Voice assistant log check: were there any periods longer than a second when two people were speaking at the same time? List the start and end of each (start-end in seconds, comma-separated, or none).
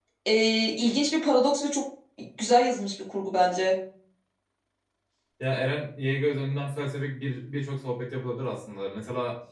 none